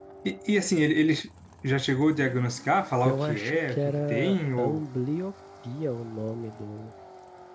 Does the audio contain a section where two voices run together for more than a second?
Yes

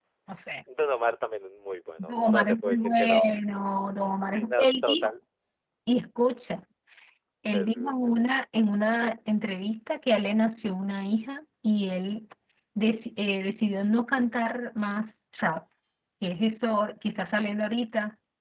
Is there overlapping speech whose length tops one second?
Yes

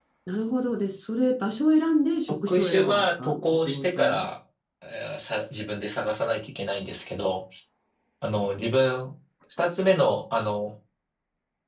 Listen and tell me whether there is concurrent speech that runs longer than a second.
Yes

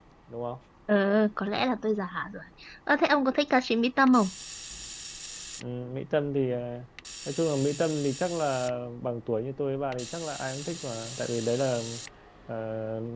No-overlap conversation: Yes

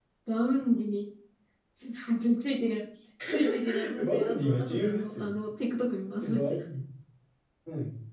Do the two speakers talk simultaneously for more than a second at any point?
Yes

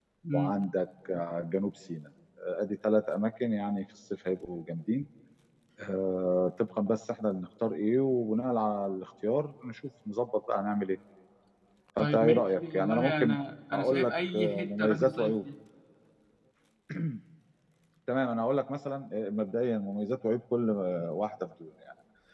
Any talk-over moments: Yes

